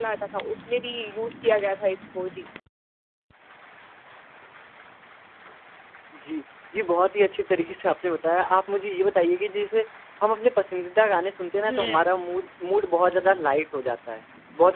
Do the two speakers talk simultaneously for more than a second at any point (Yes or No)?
No